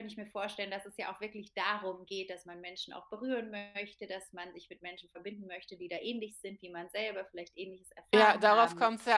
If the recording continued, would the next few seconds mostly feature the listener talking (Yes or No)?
Yes